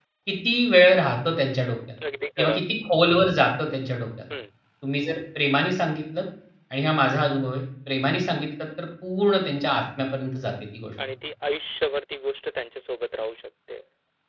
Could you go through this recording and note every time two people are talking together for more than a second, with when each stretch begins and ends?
none

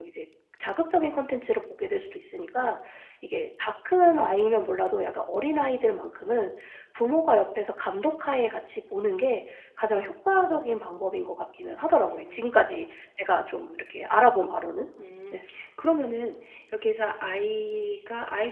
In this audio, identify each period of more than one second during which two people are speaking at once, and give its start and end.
none

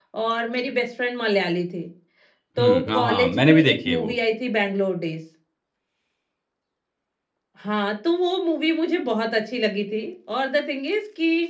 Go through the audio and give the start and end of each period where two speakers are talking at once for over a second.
2.6-4.1

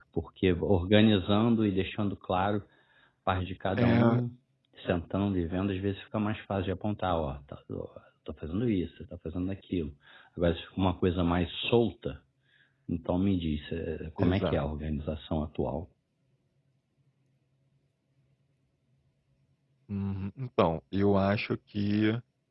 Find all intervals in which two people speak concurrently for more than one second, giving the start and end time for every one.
none

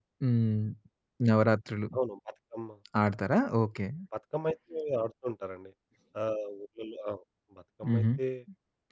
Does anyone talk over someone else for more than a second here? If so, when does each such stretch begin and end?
none

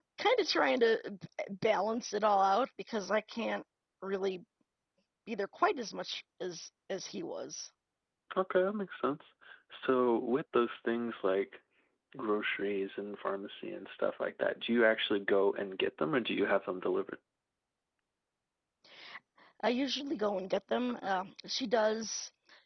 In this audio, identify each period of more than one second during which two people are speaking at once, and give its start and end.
none

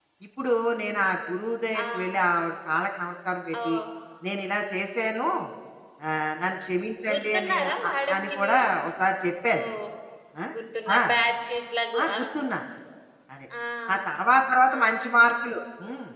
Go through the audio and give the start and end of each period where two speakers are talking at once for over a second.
7.1-8.7

